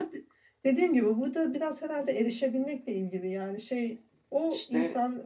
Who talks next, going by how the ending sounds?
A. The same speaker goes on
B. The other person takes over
A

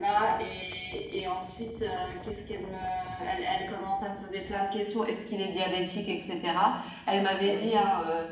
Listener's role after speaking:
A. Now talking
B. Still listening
B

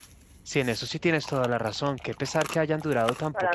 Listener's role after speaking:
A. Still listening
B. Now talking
B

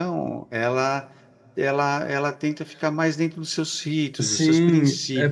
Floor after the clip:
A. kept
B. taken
B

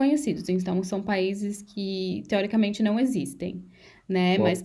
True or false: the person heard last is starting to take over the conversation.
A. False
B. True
A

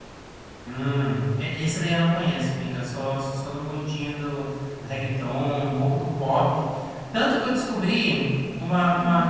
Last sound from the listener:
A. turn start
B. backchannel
B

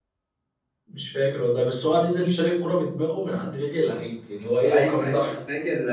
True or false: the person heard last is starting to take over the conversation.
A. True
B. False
A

